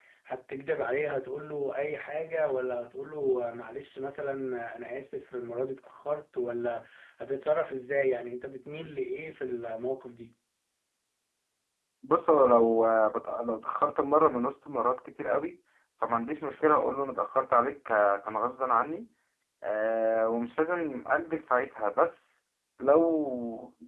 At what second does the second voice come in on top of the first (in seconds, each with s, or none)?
none